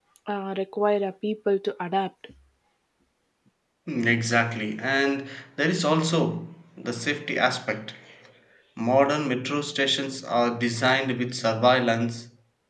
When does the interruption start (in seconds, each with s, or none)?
none